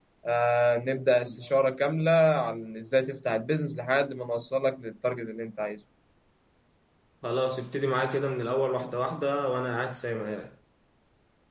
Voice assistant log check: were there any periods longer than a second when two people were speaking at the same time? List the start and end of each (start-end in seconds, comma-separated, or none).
none